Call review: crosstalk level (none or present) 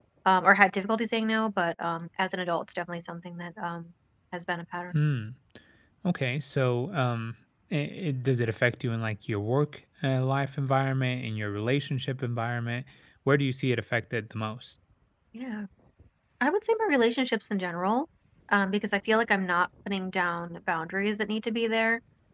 none